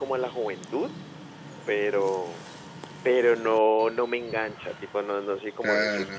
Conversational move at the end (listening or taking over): taking over